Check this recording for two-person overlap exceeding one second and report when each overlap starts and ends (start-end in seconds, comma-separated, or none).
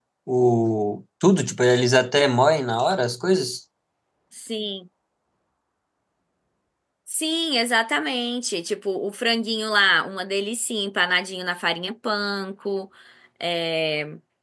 none